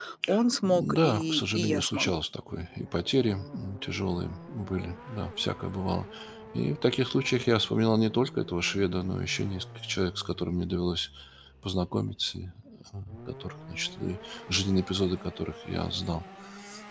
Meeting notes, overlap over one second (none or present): present